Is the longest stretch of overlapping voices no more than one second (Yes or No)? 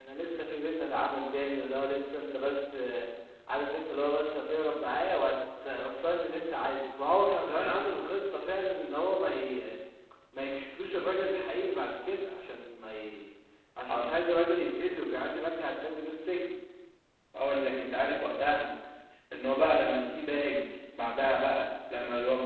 Yes